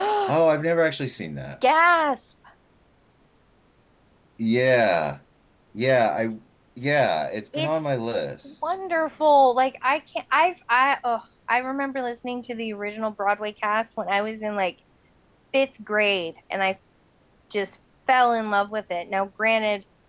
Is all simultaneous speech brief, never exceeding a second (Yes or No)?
Yes